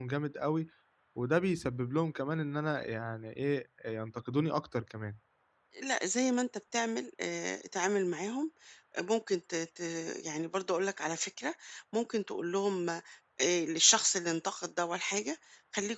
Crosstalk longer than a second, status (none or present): none